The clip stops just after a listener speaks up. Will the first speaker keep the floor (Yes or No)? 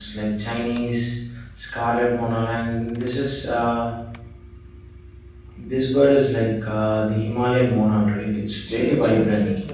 No